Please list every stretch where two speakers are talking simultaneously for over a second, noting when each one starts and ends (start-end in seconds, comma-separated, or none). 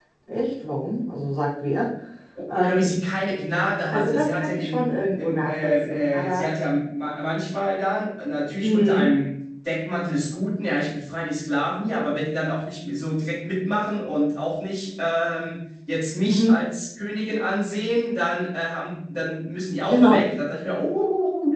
3.9-6.5